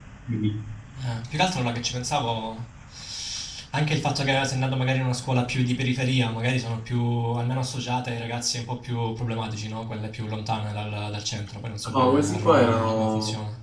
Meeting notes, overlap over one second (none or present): present